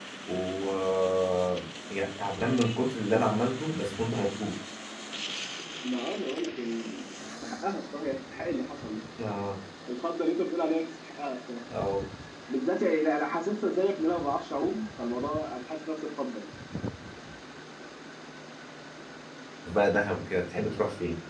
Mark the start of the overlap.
none

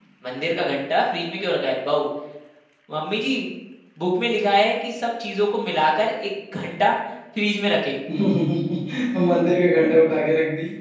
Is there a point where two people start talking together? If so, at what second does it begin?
none

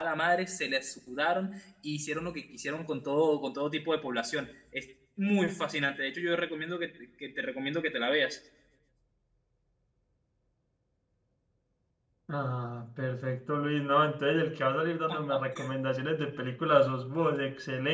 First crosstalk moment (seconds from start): none

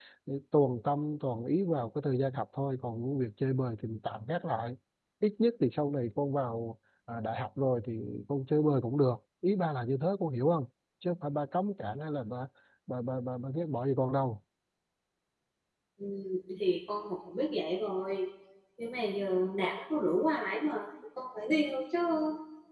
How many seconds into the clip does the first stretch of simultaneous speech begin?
none

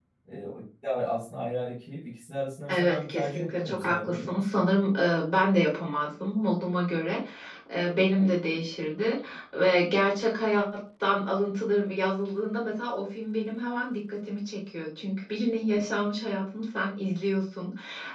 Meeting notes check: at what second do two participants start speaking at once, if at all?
2.7 s

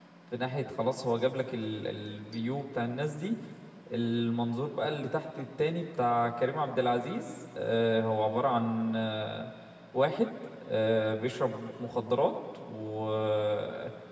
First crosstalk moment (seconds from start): none

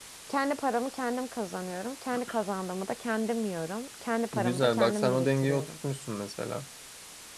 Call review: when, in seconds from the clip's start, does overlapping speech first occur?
4.3 s

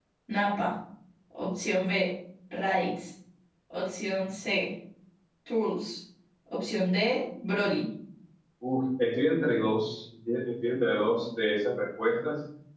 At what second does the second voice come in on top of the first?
none

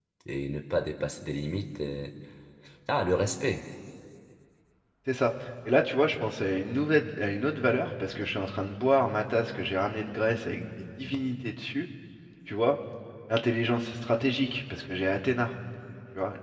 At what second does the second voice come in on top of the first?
none

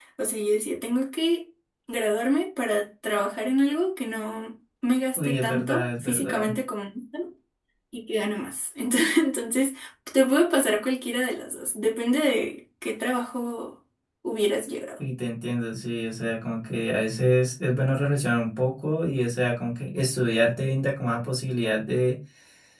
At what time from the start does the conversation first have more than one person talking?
5.2 s

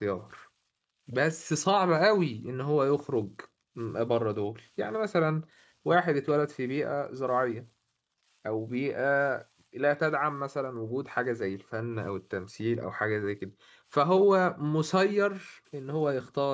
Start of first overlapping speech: none

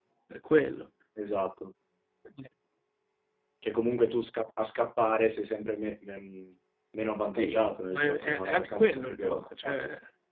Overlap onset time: 7.4 s

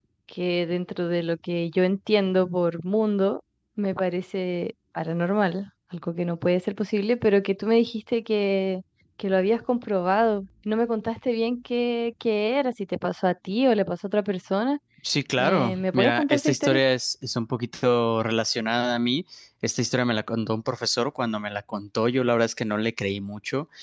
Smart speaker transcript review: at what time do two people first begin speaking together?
15.4 s

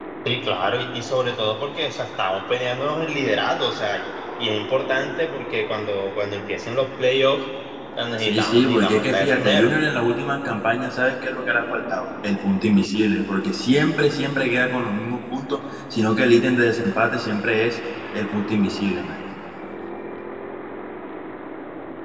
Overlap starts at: 8.2 s

